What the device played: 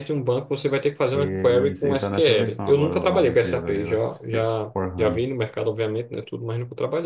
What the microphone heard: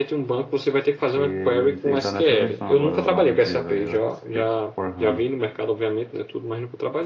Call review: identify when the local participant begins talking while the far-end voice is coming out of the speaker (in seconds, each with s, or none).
none